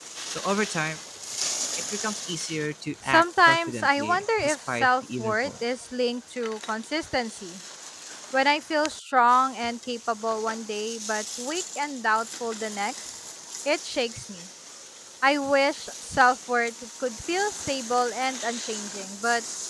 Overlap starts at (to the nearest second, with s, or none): 3 s